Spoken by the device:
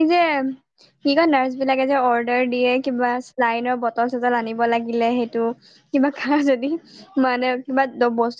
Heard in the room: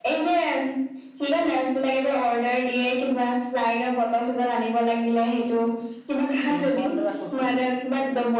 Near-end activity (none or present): present